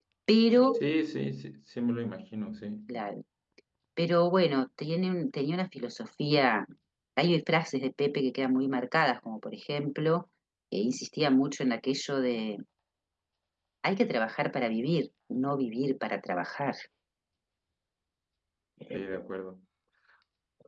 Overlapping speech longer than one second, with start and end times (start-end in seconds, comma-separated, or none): none